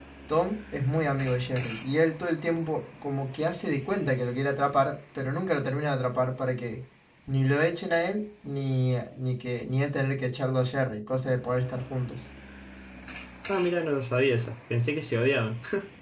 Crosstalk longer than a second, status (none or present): none